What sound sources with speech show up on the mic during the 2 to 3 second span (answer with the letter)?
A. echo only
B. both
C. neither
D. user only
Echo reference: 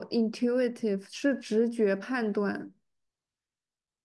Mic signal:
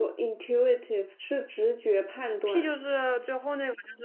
B